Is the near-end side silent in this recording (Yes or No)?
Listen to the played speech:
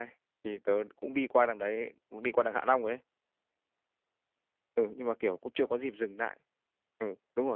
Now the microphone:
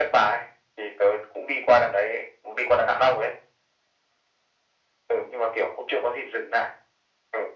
Yes